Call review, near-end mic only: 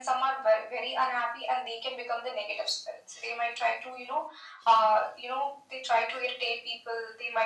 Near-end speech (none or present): none